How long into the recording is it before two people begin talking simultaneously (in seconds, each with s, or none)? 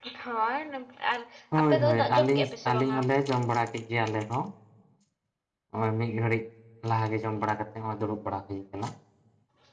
1.6 s